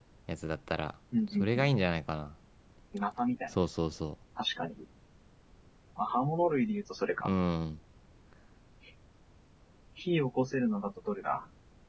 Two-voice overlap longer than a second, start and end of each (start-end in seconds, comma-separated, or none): none